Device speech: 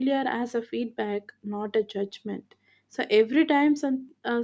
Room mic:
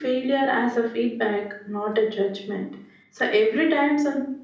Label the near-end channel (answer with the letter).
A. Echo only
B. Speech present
A